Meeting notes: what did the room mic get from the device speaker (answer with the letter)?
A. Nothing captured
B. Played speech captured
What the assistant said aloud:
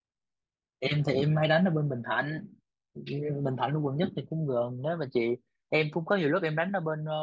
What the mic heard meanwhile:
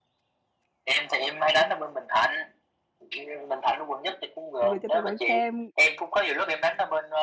B